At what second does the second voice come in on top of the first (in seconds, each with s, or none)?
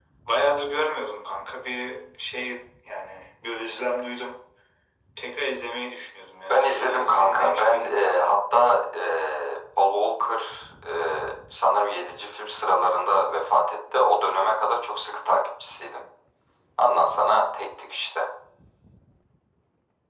6.5 s